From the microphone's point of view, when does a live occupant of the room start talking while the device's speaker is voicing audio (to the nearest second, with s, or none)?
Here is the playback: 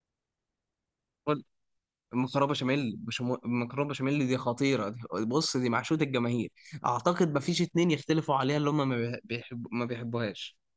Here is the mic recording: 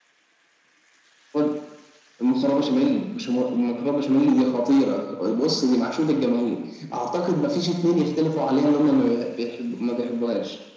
none